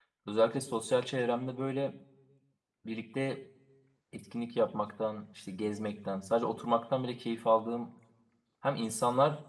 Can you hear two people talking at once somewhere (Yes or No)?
No